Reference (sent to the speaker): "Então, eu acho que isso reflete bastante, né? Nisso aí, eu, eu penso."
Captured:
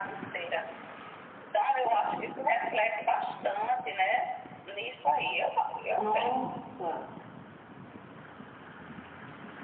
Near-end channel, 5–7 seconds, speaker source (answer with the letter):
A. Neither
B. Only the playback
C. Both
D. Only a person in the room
C